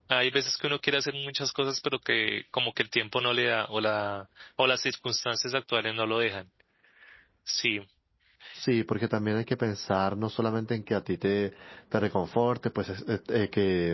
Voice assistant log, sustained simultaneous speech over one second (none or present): none